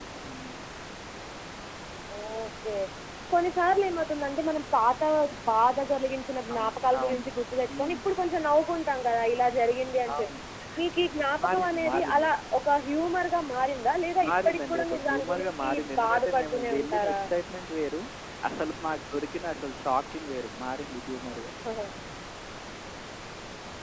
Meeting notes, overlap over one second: present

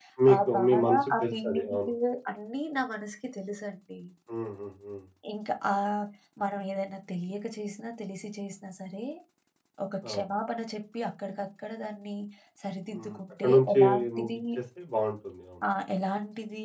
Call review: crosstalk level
present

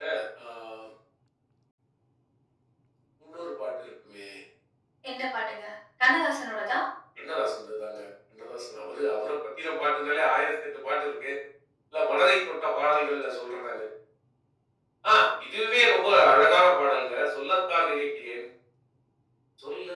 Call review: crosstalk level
none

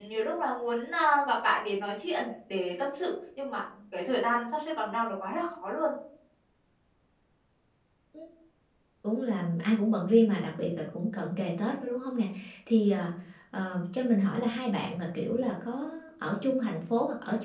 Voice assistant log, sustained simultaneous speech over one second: none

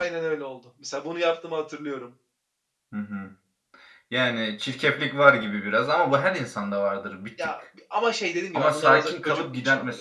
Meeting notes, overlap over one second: present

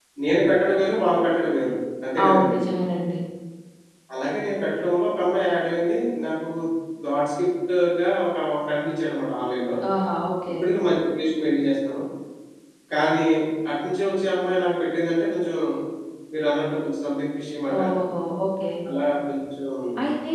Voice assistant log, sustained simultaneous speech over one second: none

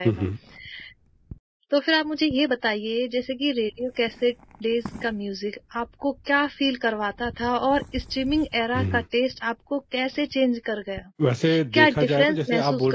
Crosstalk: present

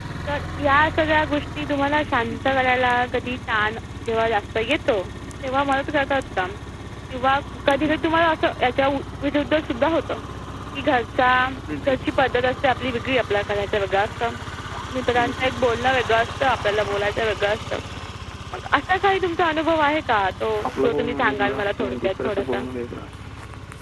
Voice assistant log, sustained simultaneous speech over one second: present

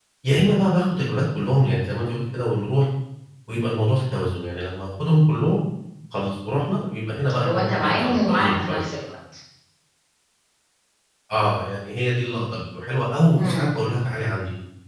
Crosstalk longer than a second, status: present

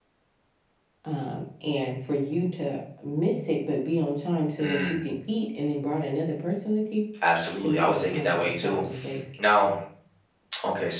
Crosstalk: present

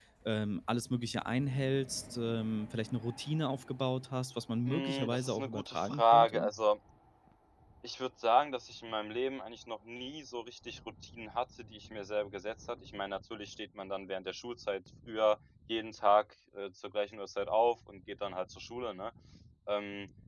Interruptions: present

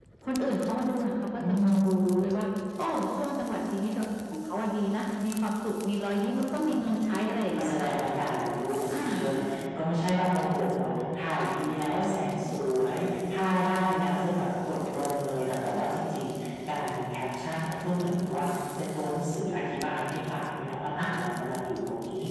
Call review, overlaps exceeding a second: none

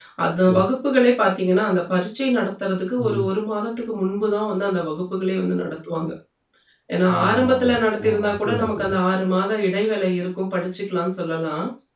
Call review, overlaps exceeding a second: present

